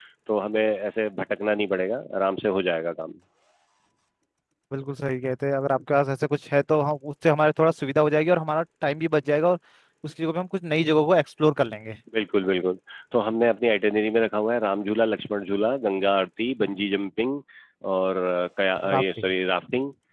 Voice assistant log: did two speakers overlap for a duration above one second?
No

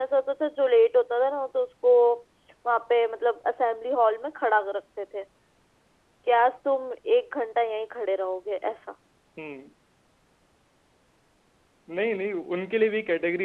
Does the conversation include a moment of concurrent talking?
No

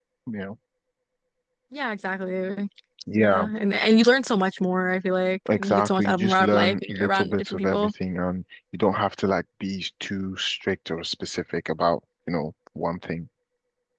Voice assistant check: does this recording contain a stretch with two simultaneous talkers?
Yes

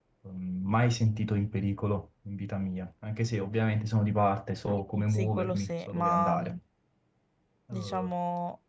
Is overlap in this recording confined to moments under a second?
No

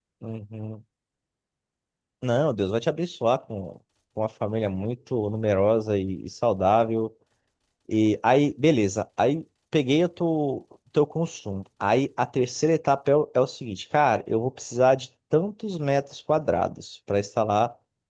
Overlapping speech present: No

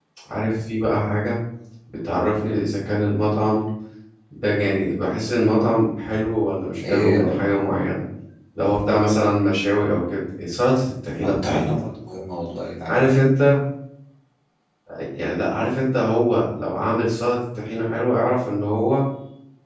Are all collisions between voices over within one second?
Yes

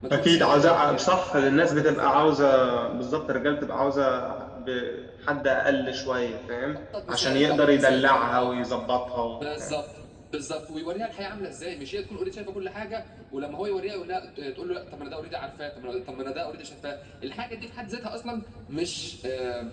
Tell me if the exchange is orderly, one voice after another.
No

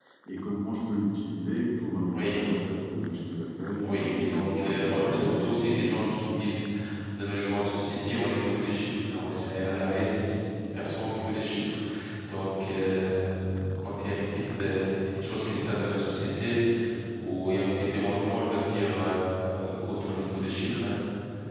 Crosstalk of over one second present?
Yes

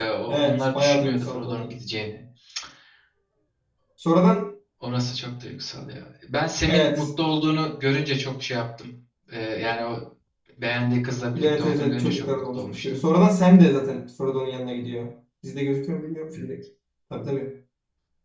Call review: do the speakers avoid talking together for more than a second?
No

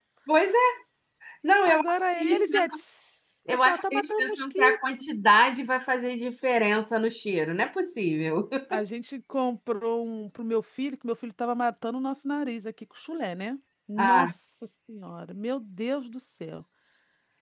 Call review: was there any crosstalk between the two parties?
Yes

